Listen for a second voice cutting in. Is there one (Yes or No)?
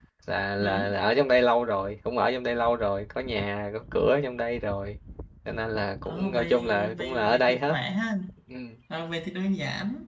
Yes